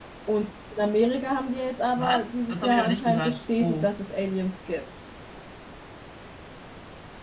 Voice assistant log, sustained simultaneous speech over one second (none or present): present